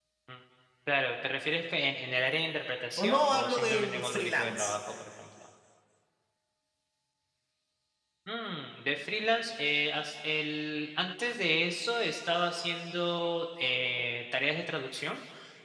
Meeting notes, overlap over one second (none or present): present